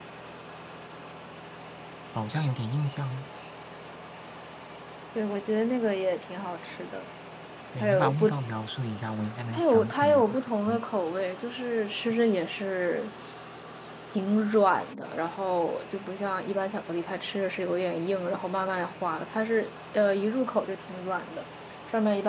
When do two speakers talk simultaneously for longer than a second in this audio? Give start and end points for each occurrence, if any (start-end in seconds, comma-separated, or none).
9.5-10.8